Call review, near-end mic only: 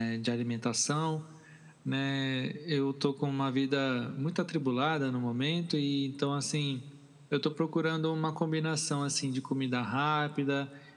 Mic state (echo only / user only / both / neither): echo only